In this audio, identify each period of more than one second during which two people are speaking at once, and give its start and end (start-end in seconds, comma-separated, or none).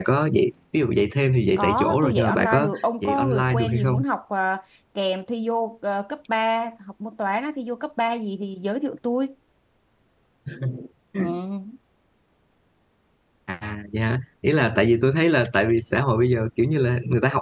1.6-4.0